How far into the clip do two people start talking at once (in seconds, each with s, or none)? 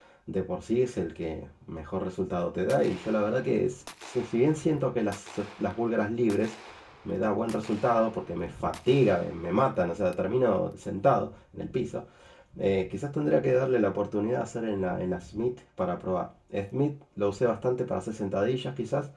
none